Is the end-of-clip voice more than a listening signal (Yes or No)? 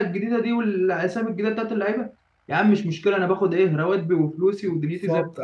Yes